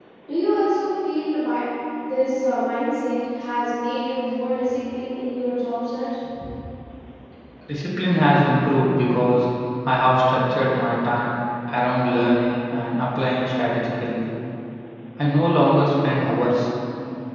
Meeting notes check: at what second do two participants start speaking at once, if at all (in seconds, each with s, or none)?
none